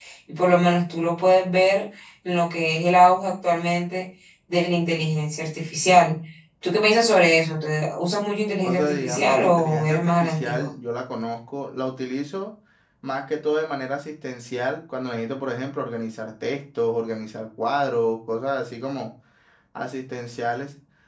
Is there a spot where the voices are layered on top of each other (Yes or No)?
Yes